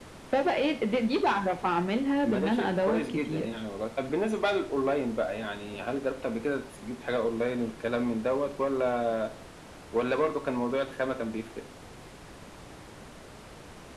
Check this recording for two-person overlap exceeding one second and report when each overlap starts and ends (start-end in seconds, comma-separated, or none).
2.2-3.5